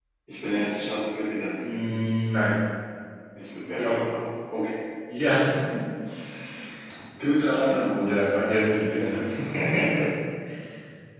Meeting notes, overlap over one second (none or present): present